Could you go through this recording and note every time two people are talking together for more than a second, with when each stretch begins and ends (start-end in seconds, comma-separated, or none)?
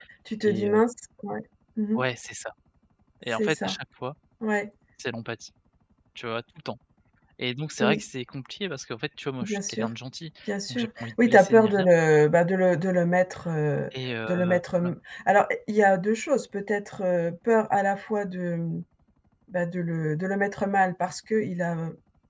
10.7-11.9